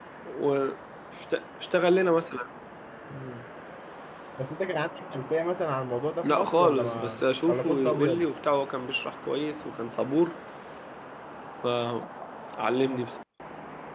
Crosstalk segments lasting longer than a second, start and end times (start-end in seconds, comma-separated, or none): 6.2-8.3